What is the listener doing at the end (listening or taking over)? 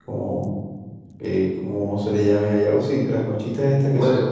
taking over